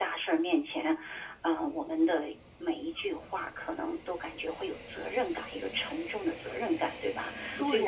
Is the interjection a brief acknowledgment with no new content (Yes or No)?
No